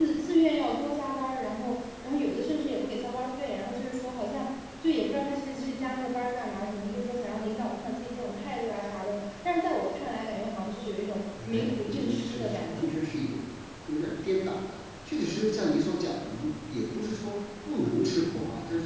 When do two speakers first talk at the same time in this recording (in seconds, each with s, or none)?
11.4 s